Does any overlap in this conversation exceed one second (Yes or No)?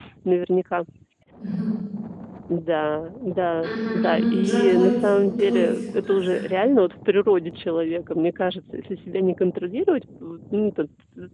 Yes